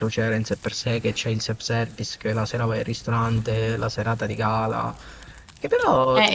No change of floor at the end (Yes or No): No